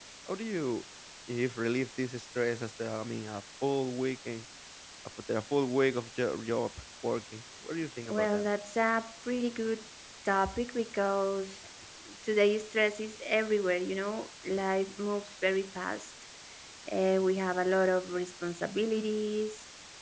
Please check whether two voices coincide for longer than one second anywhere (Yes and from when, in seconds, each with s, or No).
No